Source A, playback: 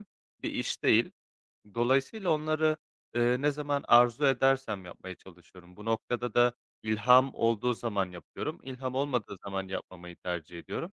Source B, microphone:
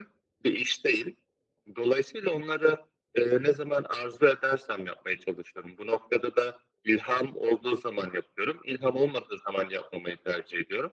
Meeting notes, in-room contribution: none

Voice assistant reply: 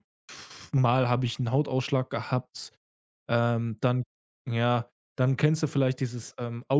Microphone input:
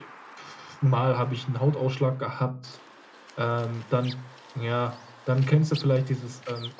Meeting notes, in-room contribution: none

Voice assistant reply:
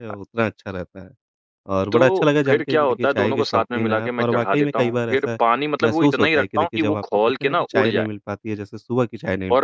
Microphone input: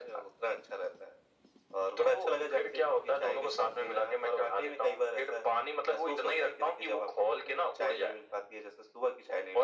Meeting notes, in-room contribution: none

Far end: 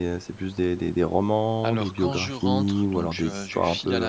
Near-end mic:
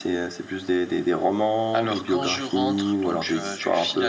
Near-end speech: none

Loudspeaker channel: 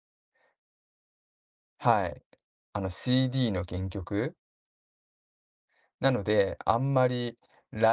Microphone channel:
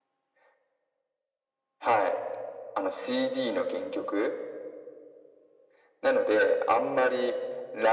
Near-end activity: none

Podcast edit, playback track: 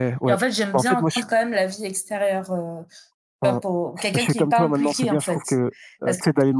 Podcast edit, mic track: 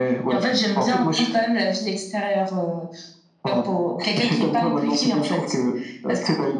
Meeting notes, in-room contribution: none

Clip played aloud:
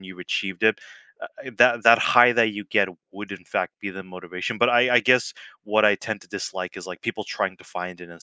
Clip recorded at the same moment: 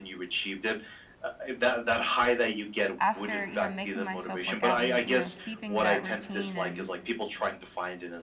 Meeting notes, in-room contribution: present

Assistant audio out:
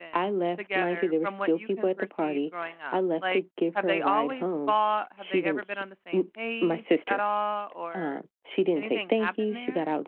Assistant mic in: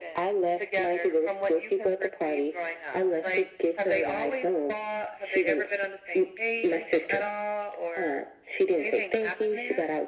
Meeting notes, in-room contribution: none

